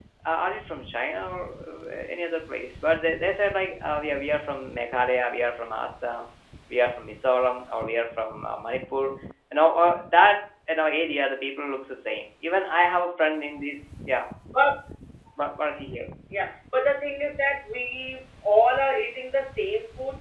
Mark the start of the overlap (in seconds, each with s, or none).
none